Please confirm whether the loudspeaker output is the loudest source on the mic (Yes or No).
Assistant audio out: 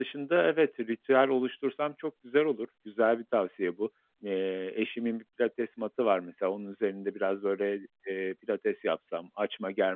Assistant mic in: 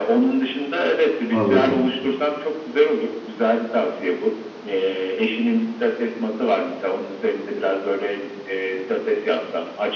No